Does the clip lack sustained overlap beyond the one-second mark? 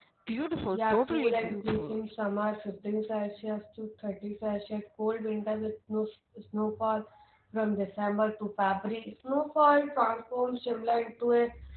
No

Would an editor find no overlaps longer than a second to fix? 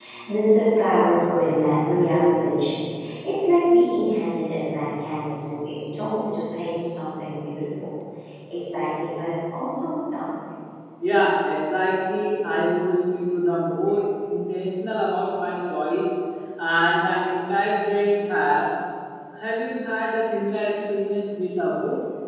Yes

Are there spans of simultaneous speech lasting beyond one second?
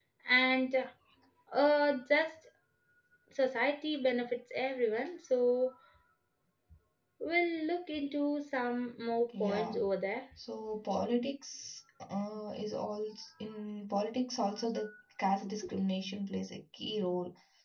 No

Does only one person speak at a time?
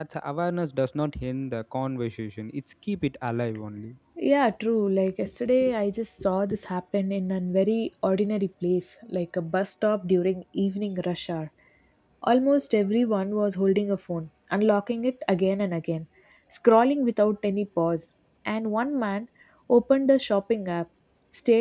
Yes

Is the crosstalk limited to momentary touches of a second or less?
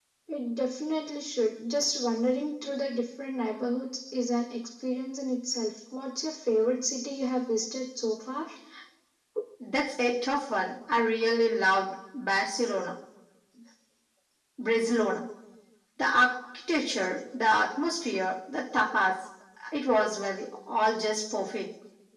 Yes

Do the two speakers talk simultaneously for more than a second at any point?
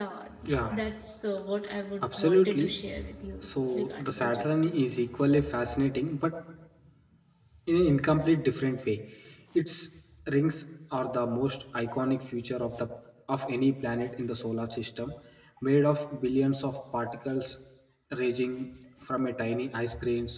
Yes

